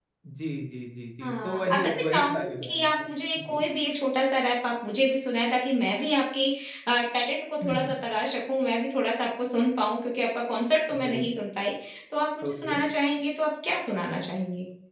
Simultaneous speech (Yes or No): Yes